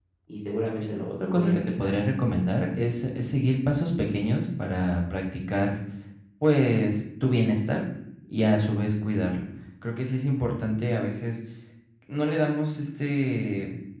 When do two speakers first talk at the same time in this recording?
0.6 s

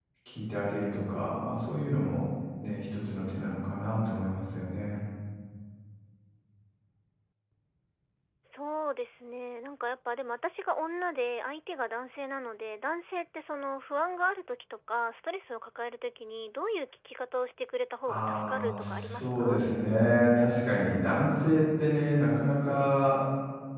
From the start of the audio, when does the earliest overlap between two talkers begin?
18.1 s

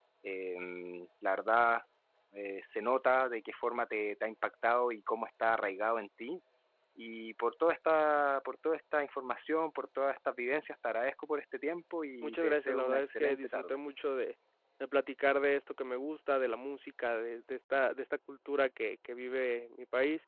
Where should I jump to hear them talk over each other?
12.2 s

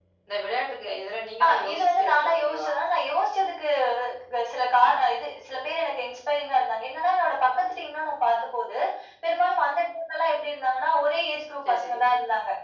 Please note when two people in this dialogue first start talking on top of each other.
1.4 s

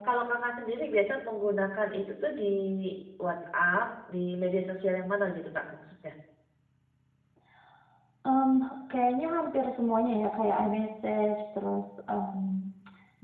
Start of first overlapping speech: none

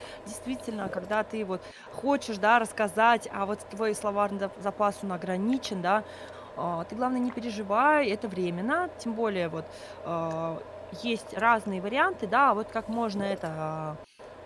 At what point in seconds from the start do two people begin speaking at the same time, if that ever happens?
none

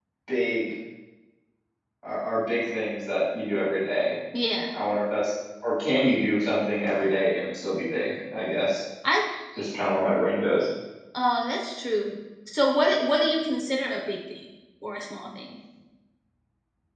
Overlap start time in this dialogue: none

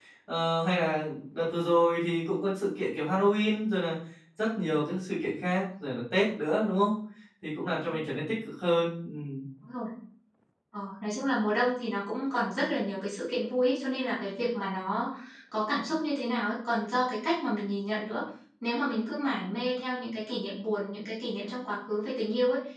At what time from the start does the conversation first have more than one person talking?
none

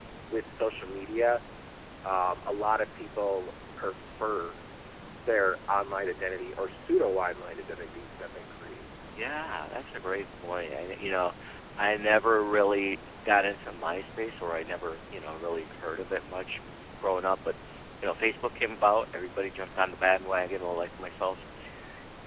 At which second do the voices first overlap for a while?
none

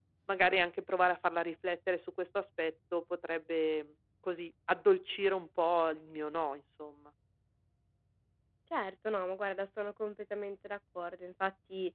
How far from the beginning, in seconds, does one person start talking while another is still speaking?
none

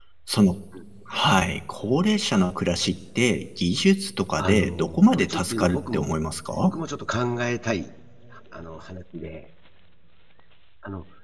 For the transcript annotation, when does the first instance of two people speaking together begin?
4.4 s

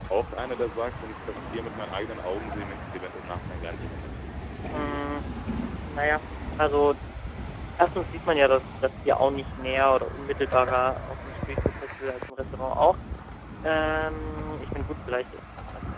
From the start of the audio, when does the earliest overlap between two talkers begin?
none

